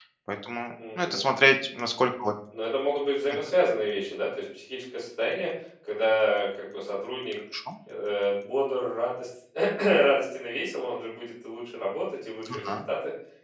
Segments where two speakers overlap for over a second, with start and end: none

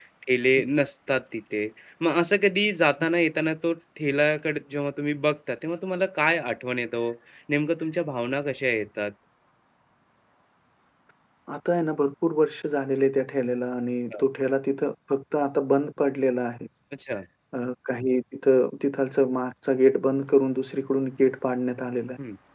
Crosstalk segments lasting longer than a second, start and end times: none

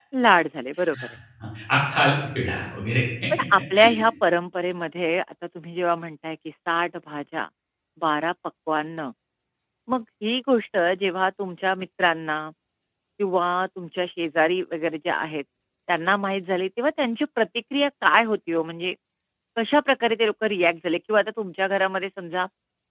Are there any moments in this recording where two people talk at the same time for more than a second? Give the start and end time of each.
none

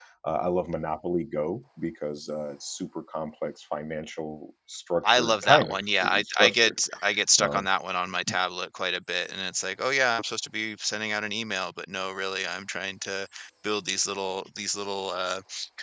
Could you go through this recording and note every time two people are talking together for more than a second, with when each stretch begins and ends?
5.0-6.8

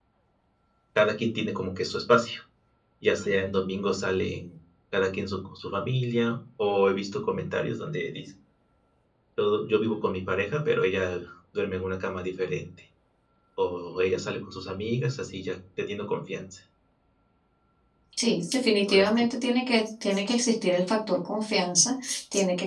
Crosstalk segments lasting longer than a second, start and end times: none

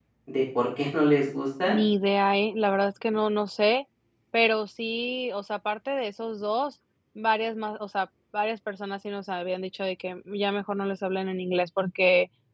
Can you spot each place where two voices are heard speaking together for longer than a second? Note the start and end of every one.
none

